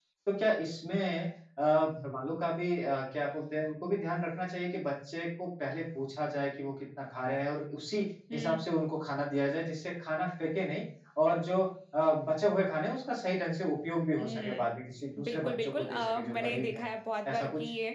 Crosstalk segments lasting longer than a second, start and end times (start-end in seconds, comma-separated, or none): 15.2-16.9